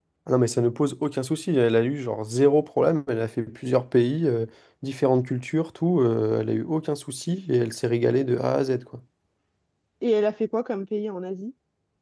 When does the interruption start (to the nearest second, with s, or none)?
none